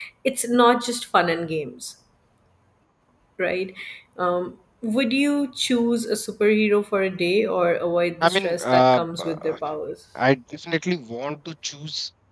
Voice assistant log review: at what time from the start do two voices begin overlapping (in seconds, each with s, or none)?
8.2 s